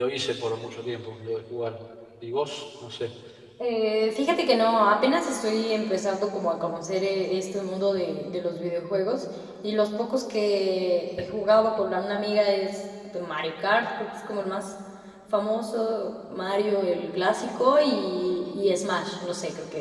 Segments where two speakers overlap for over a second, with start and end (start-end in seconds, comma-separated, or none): none